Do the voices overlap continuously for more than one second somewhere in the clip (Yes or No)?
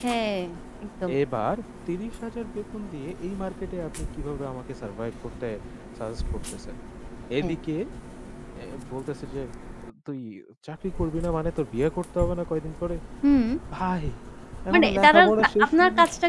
Yes